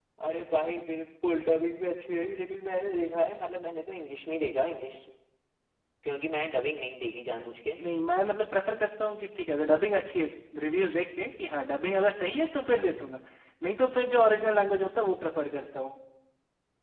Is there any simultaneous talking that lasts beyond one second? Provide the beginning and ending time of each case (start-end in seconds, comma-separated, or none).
none